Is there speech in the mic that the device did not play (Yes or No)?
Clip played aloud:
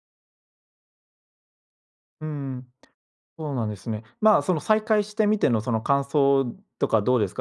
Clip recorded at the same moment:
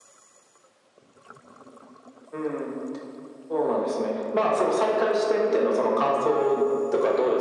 No